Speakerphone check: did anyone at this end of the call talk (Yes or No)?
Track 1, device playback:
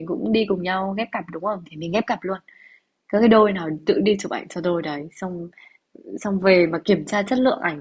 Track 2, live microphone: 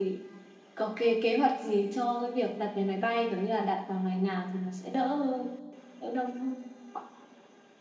Yes